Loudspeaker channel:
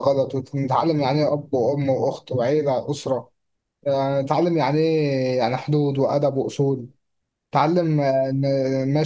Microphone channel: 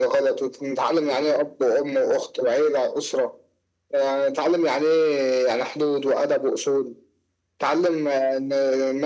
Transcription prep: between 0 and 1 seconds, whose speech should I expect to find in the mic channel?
echo only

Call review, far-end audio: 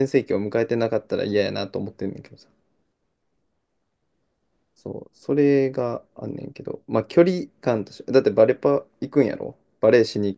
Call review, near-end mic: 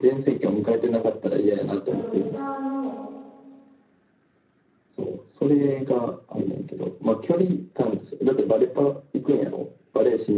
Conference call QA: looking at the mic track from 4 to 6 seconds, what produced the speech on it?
echo only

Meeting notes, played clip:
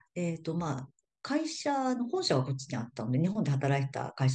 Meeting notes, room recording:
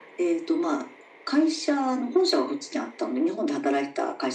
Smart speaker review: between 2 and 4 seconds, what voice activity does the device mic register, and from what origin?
echo only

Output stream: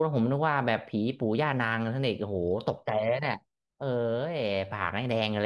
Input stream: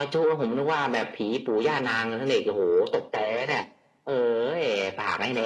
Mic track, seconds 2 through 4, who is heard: echo only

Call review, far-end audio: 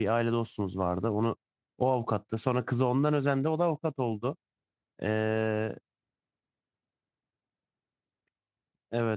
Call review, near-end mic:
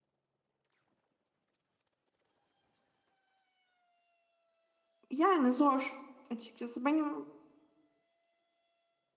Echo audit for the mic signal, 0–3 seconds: neither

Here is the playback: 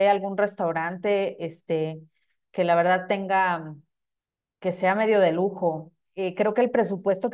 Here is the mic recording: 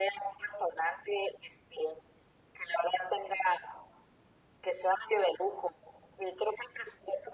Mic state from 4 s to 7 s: echo only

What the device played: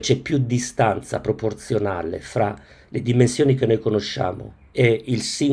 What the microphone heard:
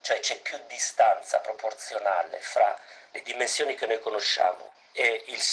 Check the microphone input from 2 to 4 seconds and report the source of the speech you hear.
echo only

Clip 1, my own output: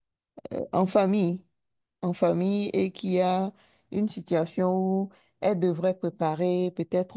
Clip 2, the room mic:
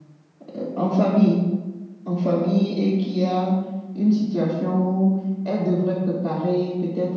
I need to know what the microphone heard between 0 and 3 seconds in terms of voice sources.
echo only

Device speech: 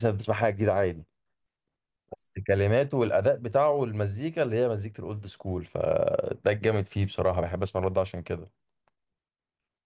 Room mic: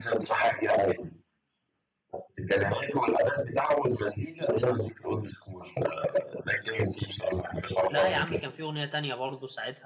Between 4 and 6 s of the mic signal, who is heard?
echo only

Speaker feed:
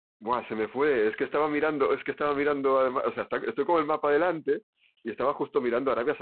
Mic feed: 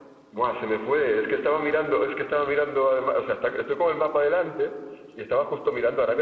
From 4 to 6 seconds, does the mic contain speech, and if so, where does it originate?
echo only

